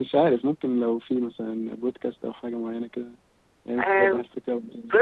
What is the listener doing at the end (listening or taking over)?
taking over